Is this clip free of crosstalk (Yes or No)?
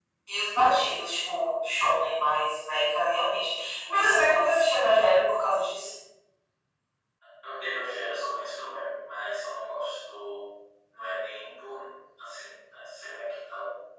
Yes